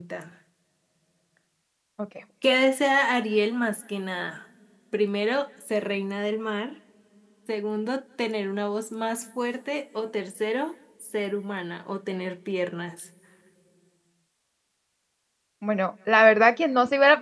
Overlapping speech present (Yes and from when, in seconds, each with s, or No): No